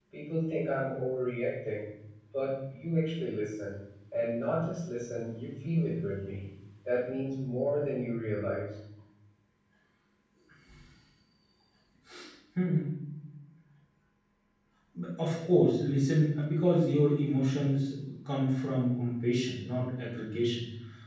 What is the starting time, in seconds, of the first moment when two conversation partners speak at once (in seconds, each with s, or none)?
none